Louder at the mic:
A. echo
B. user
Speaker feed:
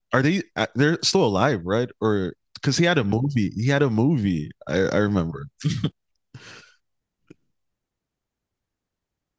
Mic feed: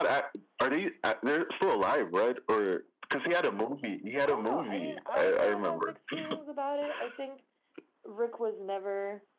A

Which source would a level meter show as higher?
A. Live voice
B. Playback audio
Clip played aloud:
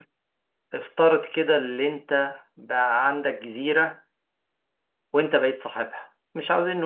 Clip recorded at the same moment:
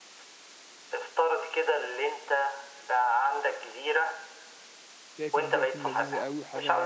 B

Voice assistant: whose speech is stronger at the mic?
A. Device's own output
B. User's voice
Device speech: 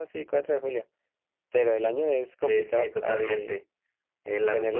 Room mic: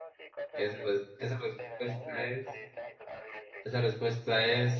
B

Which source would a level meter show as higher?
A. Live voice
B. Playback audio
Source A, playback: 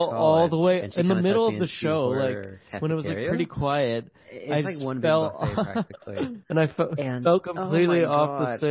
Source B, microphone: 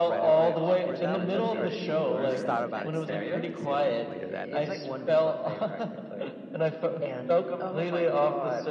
B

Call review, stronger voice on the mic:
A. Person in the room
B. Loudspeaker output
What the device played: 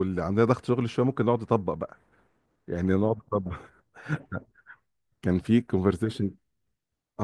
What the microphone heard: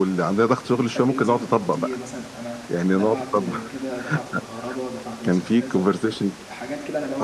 B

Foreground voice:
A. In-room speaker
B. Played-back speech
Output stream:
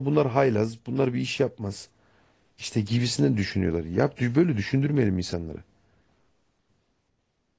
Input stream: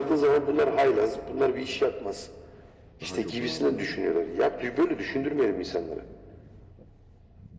B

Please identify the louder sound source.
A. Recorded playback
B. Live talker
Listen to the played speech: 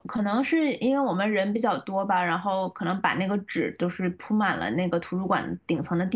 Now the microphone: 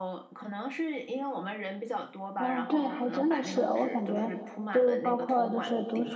B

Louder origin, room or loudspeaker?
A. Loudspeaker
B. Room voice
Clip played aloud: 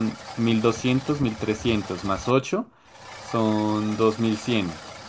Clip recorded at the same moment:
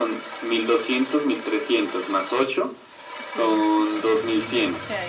A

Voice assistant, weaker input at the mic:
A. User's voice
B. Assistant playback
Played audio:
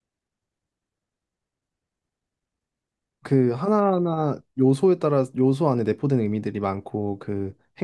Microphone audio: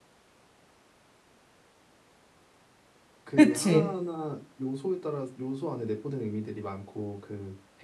B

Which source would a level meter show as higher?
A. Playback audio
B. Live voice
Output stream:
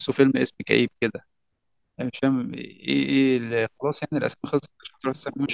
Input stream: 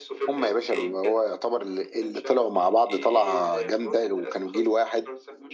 B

